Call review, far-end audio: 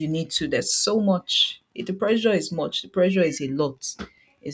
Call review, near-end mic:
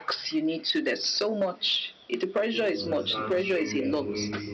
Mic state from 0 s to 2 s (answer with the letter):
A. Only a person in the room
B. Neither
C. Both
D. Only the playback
D